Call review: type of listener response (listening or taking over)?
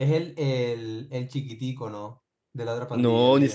taking over